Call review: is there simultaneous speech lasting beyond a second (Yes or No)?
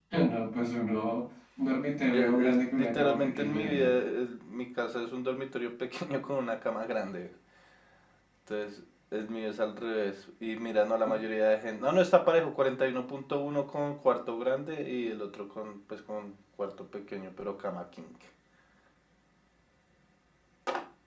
Yes